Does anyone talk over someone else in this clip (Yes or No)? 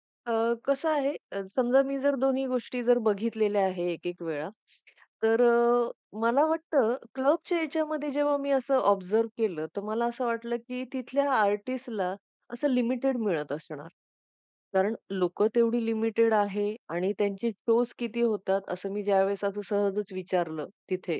No